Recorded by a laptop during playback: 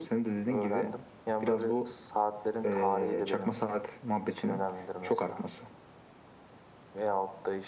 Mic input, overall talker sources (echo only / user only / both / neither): both